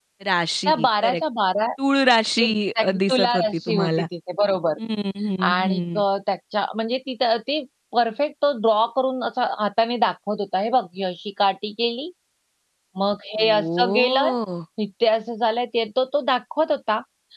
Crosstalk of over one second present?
Yes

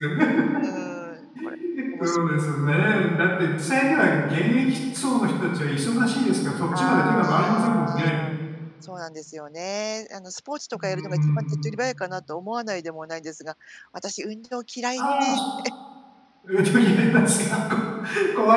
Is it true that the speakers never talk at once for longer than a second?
No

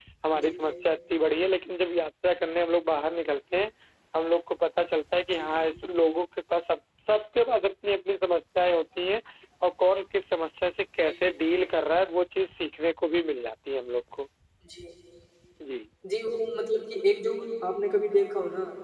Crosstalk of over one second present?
No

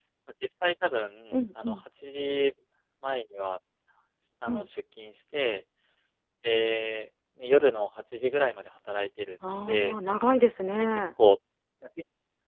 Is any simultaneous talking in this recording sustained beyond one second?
No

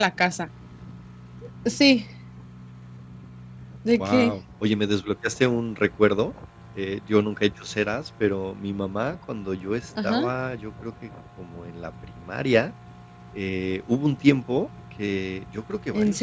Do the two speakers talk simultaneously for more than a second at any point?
No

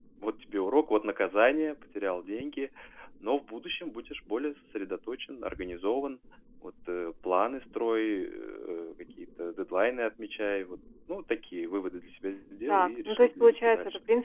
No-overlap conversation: No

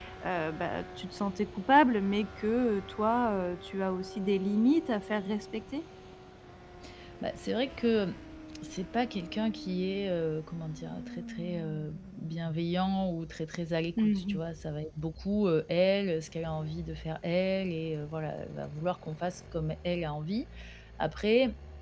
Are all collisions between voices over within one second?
Yes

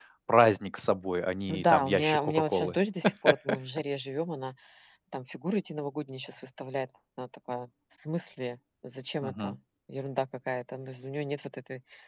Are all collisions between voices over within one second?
No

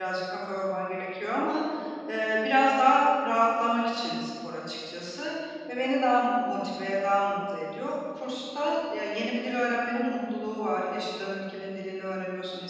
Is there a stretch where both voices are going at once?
No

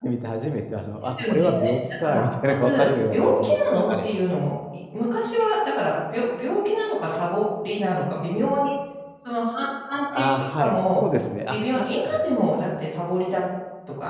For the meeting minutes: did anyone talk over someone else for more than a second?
Yes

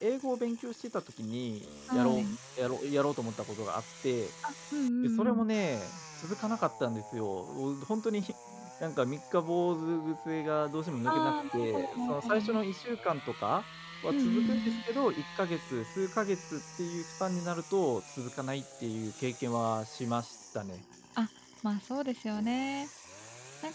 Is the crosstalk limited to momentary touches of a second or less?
No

